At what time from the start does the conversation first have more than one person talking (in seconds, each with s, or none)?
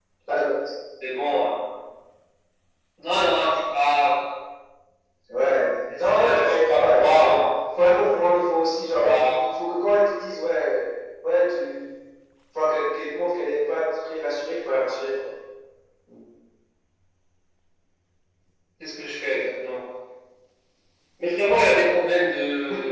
6.0 s